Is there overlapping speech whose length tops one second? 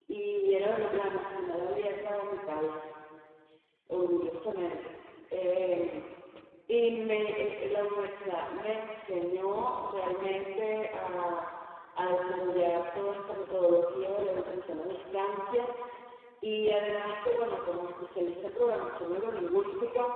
No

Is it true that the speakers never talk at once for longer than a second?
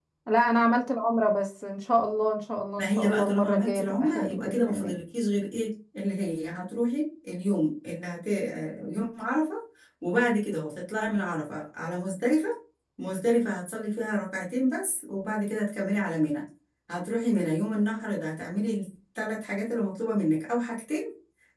No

